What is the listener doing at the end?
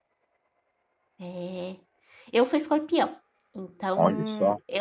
listening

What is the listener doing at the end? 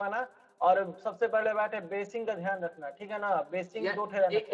taking over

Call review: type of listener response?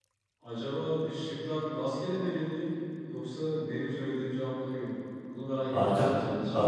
taking over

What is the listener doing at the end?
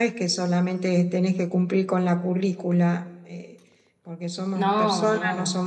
listening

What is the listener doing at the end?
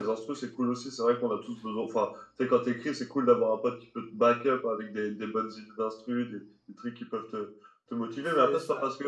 listening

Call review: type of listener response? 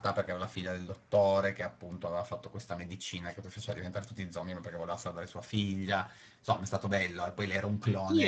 taking over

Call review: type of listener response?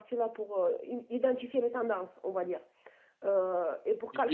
taking over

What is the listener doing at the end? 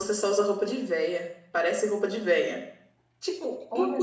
listening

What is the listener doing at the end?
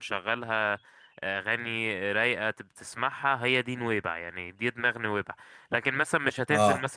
taking over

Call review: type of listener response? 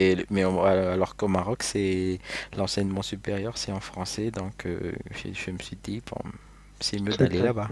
taking over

